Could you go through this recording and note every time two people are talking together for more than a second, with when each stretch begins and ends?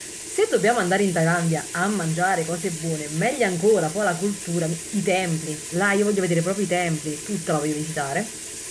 none

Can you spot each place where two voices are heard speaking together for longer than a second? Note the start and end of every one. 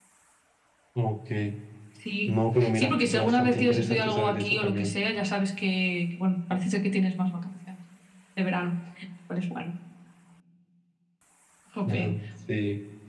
2.3-4.9

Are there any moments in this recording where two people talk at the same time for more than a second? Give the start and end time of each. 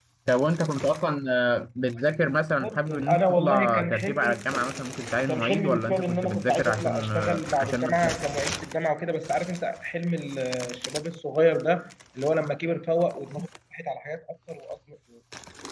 2.6-4.4, 5.3-8.2

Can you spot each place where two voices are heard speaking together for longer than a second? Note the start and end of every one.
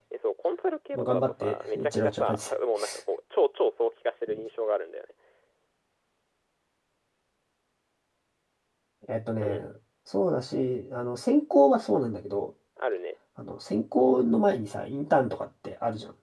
0.9-2.4

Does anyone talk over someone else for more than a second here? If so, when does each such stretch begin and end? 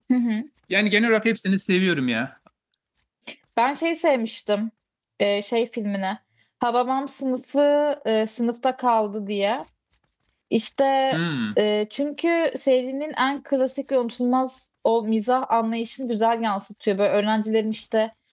none

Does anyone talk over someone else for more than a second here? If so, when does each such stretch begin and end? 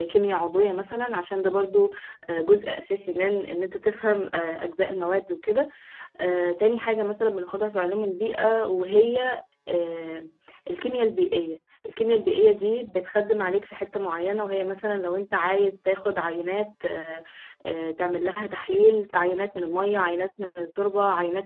none

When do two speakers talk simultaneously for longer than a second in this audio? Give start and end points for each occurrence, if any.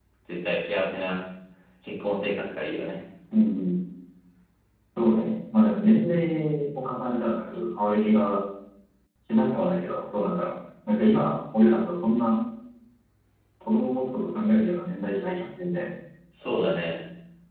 none

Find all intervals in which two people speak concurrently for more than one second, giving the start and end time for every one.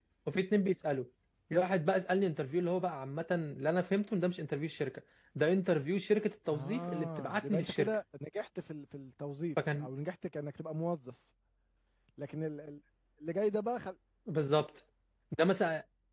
6.5-8.0

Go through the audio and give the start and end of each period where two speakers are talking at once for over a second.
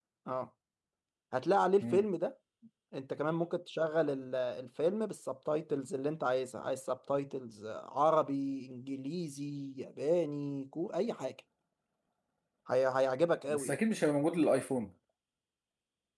none

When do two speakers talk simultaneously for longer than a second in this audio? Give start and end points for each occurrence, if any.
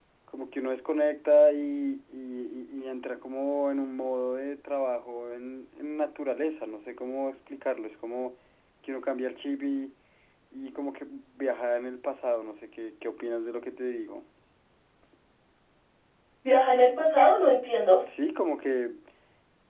none

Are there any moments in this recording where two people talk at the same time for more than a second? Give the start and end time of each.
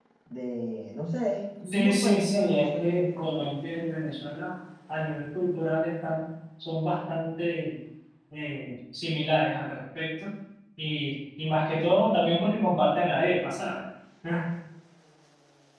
1.7-3.5

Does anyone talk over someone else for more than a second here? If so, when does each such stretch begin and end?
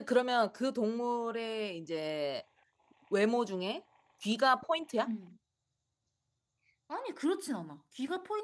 none

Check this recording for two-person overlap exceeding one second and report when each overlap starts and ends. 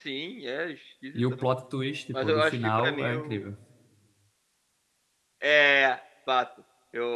2.2-3.5

